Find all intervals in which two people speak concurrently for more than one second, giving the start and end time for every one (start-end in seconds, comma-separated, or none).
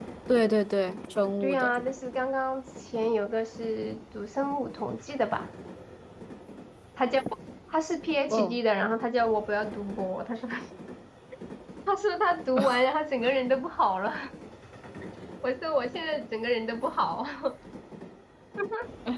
none